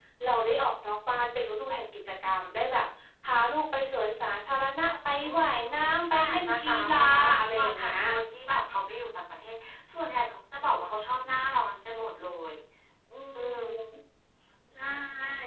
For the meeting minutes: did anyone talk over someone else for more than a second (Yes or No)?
Yes